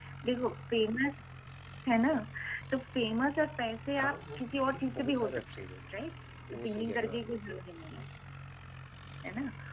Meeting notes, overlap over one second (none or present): present